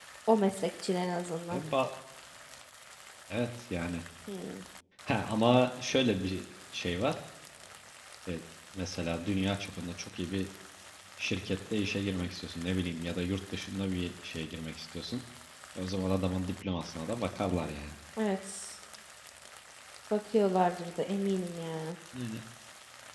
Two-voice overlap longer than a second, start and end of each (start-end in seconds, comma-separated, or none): none